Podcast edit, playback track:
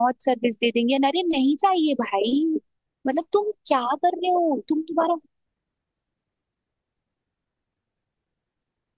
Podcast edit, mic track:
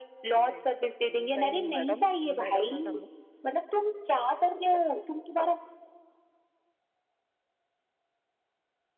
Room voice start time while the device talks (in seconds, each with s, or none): 0.4 s